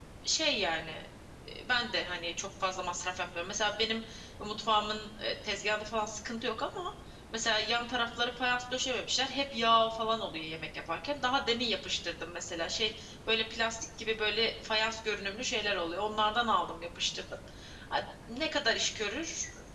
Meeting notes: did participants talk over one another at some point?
No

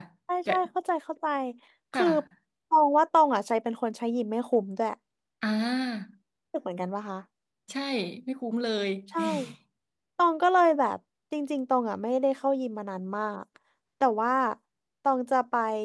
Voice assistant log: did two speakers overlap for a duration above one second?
No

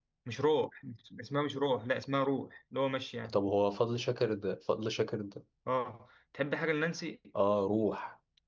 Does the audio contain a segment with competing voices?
No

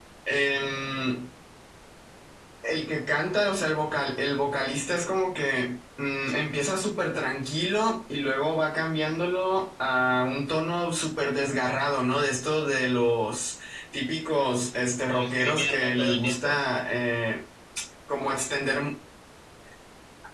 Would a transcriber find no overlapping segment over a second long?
No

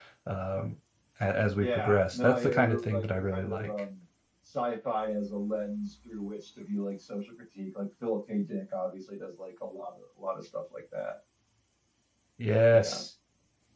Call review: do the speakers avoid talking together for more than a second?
No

